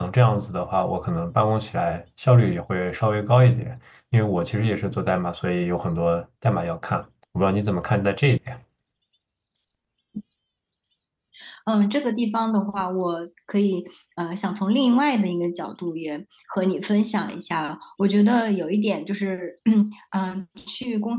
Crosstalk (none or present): none